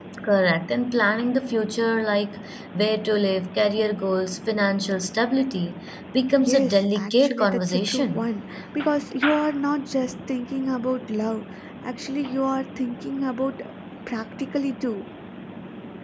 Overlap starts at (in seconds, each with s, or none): 6.4 s